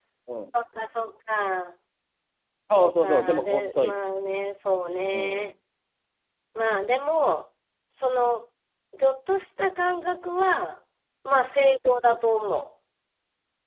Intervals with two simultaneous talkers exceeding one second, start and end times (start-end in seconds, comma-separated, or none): 2.8-4.0